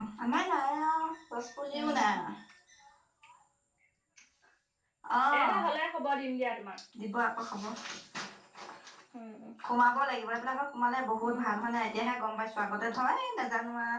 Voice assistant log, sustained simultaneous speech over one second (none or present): none